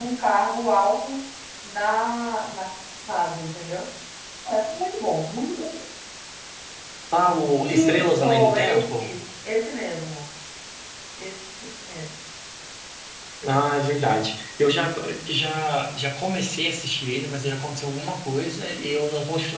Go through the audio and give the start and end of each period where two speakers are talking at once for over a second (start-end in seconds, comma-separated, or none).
7.6-9.1